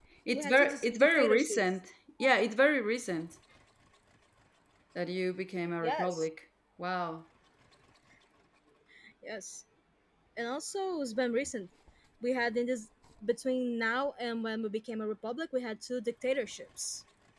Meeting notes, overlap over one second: present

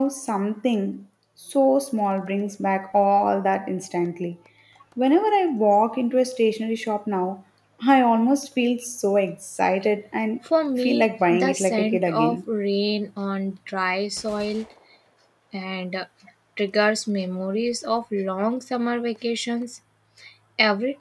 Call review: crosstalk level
present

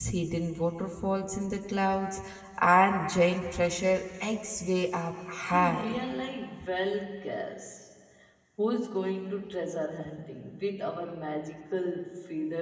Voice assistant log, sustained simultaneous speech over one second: none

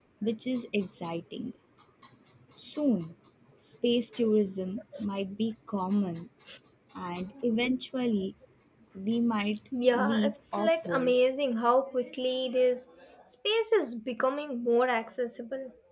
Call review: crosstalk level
present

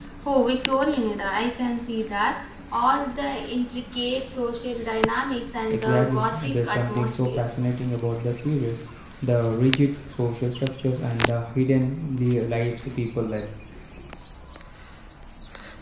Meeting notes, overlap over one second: present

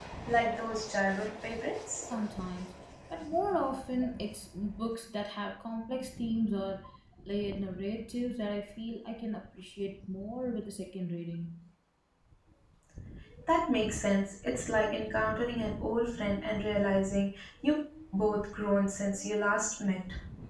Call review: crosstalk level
none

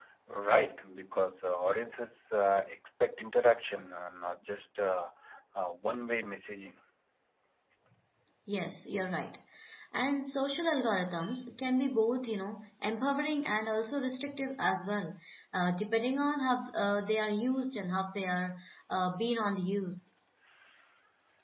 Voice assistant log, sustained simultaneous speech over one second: none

